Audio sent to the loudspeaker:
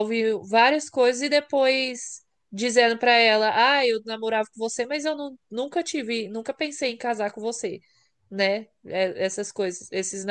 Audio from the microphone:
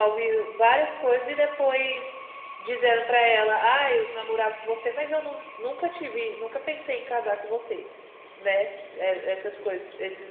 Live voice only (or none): none